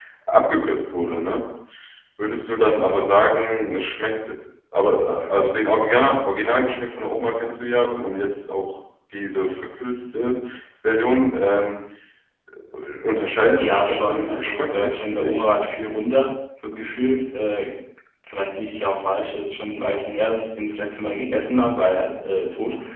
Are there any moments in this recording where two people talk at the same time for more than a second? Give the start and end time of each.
13.6-15.5

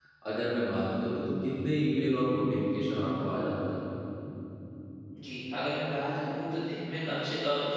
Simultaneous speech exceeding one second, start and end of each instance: none

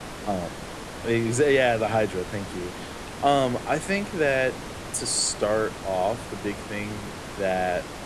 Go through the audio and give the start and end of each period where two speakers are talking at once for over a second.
none

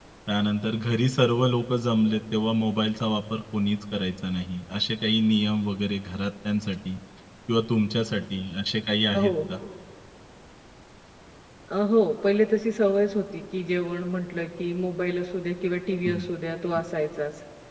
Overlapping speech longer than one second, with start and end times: none

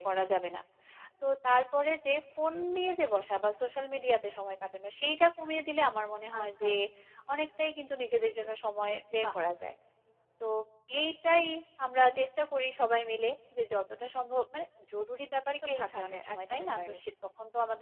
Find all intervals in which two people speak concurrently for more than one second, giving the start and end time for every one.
15.5-16.9

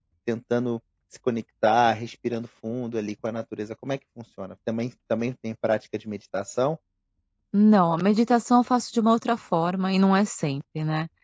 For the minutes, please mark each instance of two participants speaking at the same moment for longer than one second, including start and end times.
none

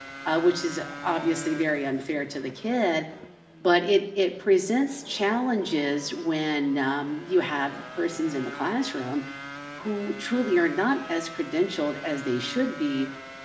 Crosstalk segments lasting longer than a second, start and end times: none

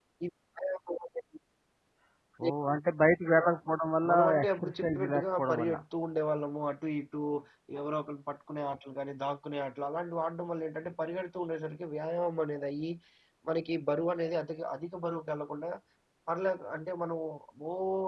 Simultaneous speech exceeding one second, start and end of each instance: 4.1-5.8

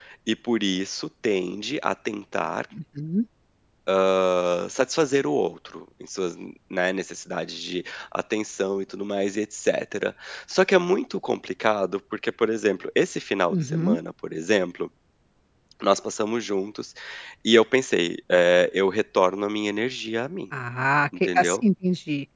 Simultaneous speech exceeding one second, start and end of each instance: none

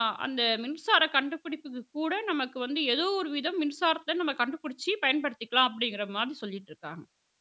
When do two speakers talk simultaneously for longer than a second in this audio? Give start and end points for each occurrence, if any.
none

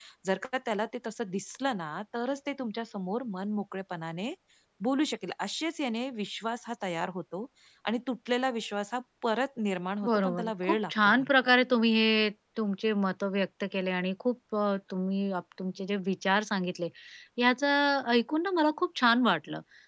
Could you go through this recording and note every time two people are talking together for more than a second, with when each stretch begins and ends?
10.1-11.5

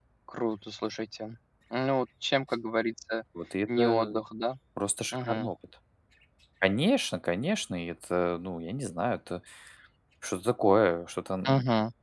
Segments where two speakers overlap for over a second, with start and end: none

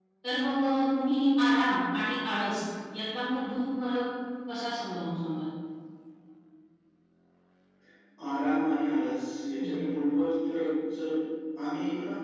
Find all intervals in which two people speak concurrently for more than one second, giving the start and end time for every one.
none

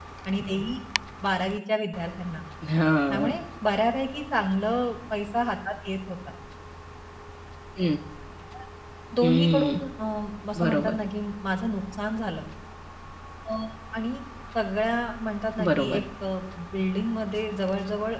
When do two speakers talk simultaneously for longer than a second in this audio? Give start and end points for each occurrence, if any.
none

